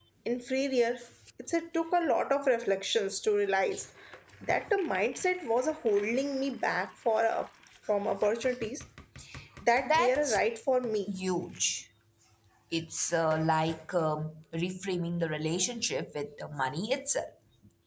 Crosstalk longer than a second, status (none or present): none